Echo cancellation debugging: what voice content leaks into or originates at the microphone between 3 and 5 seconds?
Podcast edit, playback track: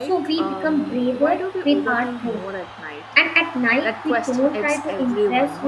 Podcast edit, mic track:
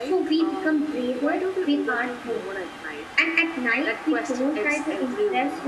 echo only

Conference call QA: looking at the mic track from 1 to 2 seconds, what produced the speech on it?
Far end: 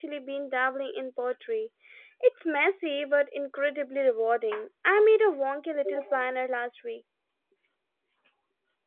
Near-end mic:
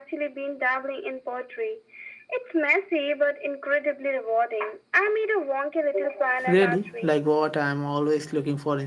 echo only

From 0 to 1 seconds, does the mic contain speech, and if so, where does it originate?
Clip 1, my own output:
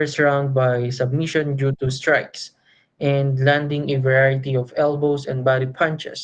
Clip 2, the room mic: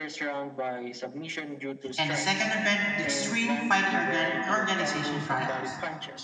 echo only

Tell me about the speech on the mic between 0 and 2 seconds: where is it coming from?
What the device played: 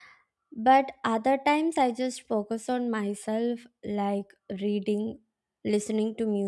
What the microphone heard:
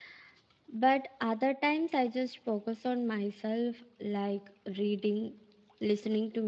echo only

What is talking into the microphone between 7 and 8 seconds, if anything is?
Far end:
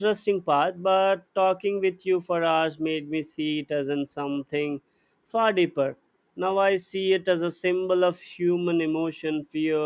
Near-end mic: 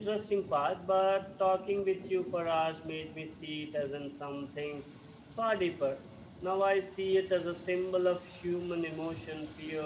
echo only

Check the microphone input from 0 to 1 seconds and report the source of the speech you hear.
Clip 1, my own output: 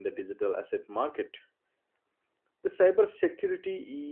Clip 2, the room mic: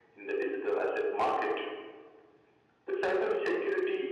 echo only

